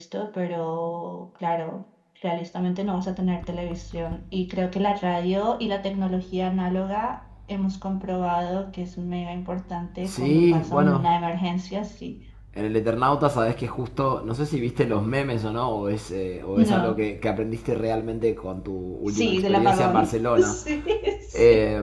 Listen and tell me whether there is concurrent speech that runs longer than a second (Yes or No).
Yes